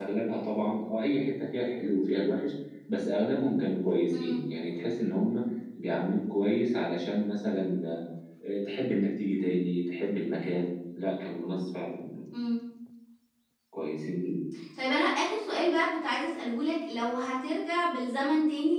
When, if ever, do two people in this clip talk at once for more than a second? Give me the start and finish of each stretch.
none

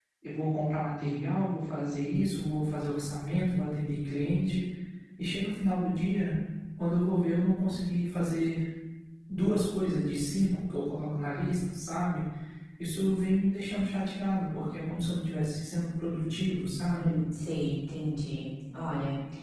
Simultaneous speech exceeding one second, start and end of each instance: none

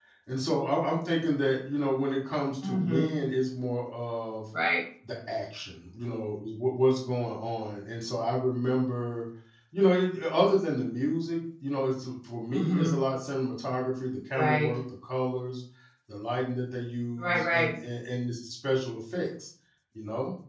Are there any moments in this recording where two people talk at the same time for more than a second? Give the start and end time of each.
none

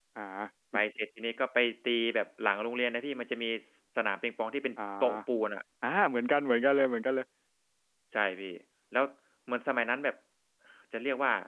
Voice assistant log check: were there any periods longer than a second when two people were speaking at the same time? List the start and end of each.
none

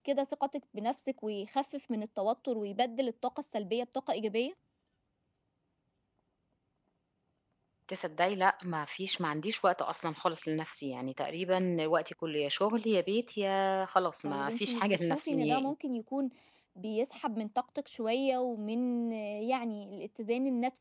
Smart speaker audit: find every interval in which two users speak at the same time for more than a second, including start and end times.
14.2-15.7

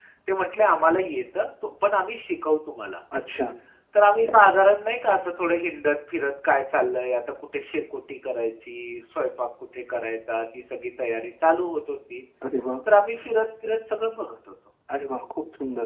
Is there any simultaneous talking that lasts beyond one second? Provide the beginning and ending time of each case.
none

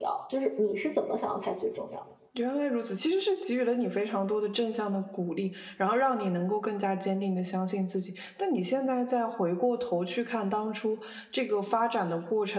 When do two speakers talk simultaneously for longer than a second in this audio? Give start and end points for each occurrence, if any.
none

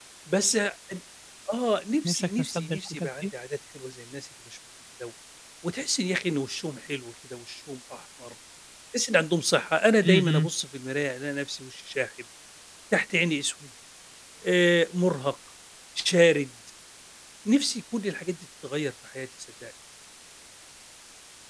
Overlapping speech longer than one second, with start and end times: 2.1-3.3

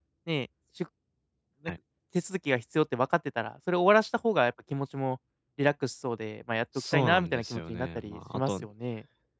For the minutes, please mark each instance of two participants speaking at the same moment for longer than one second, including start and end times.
6.9-8.6

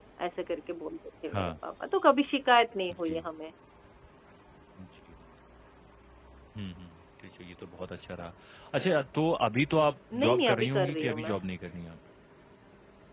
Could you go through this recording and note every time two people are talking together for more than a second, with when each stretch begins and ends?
10.1-11.4

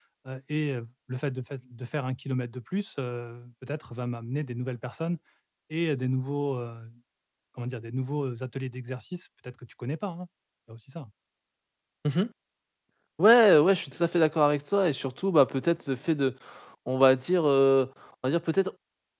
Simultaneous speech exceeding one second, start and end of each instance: none

